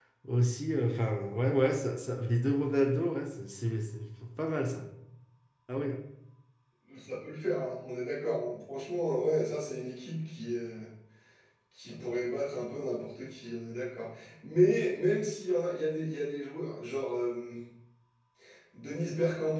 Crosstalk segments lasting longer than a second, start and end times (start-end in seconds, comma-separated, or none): none